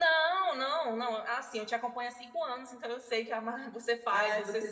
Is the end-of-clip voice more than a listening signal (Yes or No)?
Yes